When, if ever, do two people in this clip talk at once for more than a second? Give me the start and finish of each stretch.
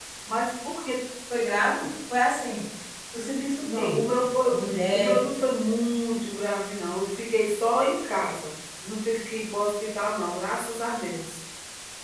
none

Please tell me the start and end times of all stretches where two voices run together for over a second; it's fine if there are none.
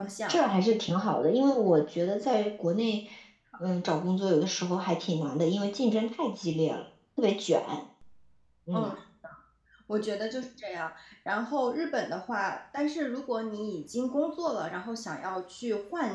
none

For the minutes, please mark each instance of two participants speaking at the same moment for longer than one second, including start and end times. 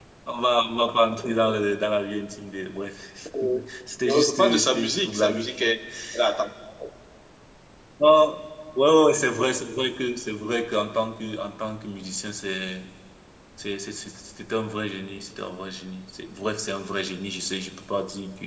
4.0-5.5

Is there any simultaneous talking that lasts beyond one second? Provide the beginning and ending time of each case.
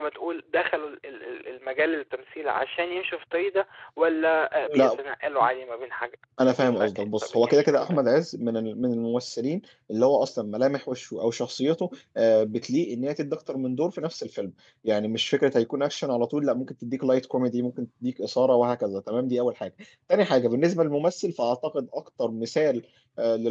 6.5-8.1

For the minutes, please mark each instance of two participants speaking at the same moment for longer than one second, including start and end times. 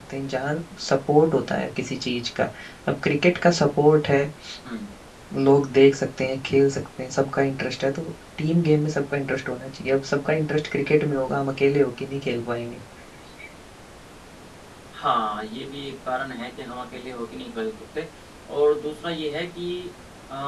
none

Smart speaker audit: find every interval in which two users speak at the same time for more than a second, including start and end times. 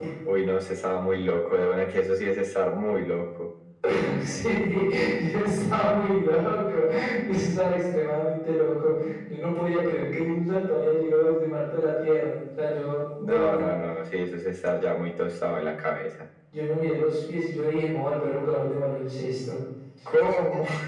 none

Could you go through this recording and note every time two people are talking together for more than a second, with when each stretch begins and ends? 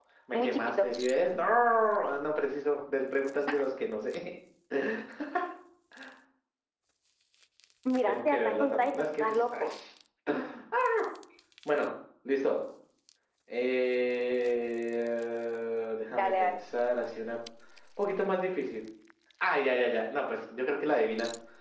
8.0-9.6

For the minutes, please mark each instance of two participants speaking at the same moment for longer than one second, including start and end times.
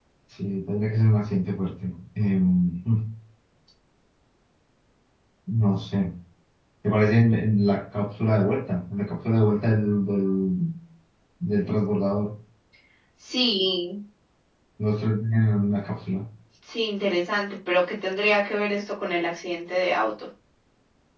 none

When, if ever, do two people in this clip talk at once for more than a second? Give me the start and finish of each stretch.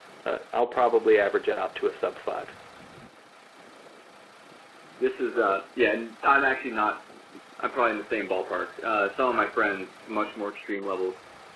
none

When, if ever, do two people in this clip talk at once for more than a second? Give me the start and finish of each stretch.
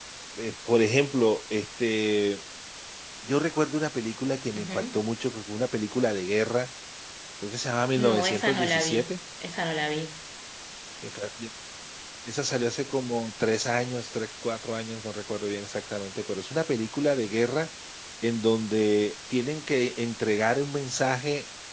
8.0-9.2

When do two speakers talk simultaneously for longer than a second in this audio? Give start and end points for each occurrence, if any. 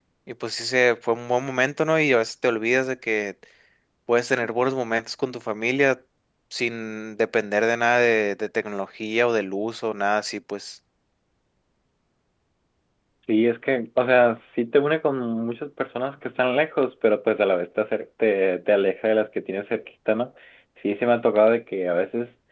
none

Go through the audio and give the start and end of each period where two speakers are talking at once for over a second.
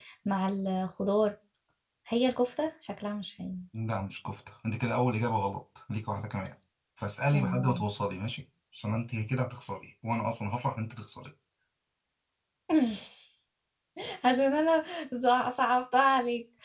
none

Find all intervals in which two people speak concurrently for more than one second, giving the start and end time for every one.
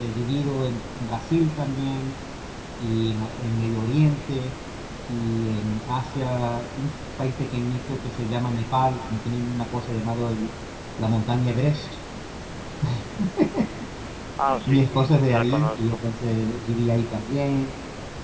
14.7-16.0

